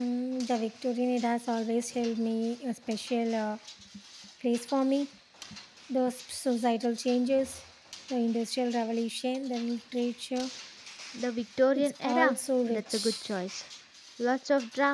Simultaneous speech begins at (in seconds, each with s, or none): 11.8 s